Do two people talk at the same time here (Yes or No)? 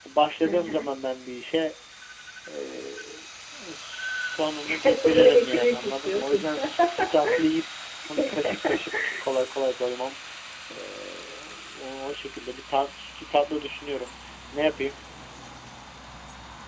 Yes